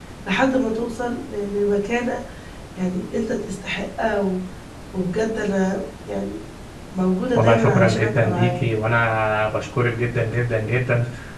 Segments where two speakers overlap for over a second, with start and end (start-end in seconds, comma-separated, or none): 7.3-8.6